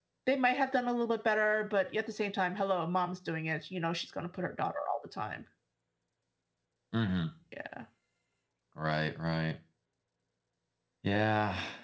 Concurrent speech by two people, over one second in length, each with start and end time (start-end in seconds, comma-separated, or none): none